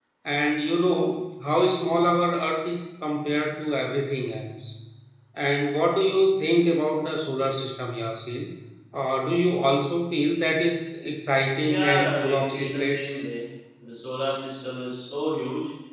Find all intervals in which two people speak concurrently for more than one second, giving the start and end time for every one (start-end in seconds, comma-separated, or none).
11.6-13.2